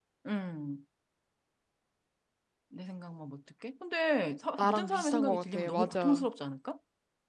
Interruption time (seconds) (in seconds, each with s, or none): 4.6 s